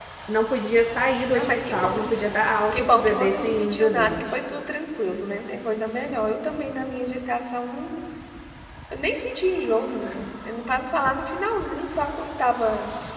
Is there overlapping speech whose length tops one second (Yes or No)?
Yes